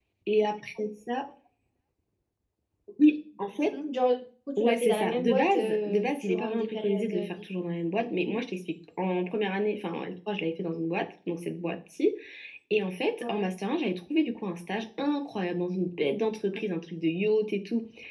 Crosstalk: present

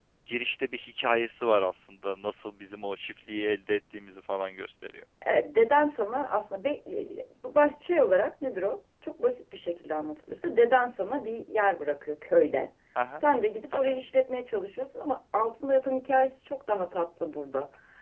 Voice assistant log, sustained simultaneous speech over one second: none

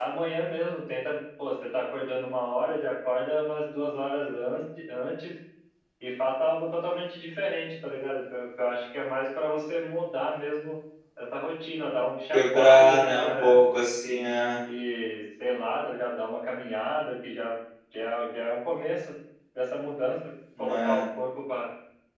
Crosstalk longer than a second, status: present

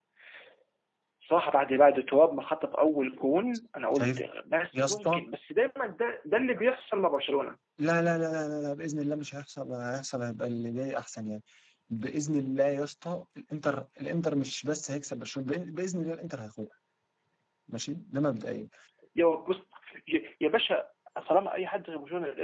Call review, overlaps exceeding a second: none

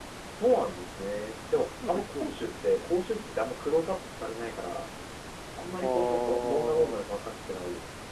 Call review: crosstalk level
present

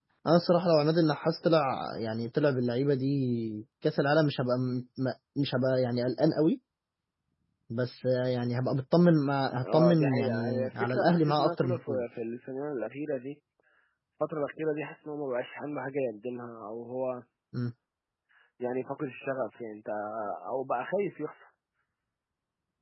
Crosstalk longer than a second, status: present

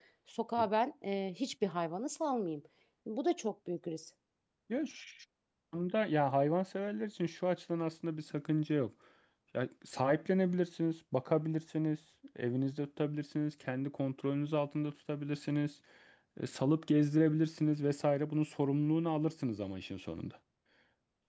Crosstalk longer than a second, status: none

